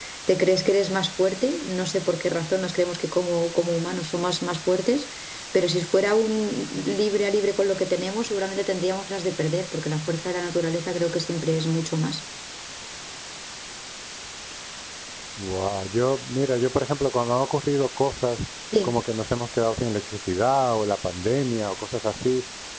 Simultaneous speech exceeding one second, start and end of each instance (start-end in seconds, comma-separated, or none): none